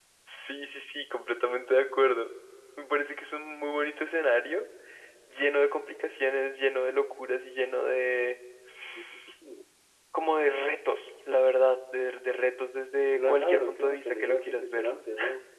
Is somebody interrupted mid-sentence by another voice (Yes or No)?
Yes